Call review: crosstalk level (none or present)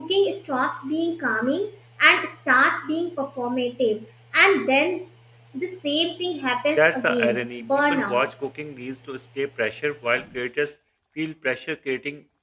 present